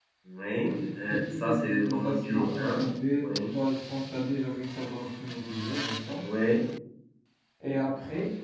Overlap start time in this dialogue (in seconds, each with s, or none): 1.1 s